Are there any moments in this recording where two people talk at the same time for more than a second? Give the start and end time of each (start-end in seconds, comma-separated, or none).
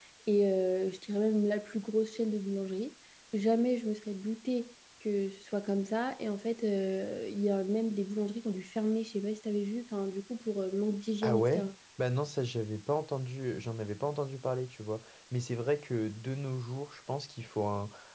none